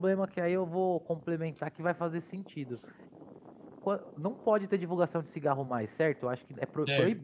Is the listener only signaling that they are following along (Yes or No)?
Yes